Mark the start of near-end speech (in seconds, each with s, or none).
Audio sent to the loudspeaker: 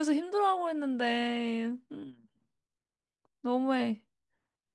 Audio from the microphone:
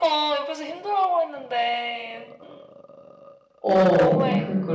3.6 s